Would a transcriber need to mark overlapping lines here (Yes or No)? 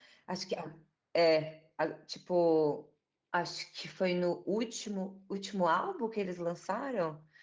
No